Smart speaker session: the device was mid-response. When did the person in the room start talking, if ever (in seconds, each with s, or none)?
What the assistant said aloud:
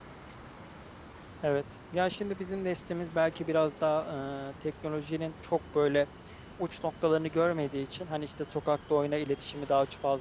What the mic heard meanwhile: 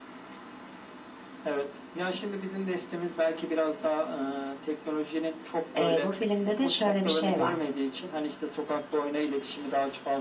5.8 s